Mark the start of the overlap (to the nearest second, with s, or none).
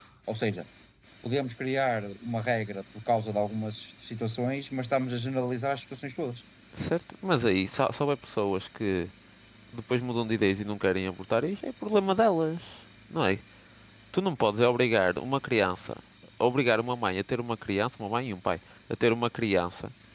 none